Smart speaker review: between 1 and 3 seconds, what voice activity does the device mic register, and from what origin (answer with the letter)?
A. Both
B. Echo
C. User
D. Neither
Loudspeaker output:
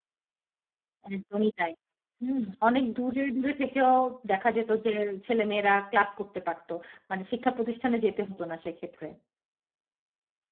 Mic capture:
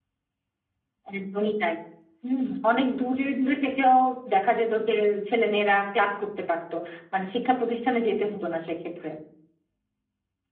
B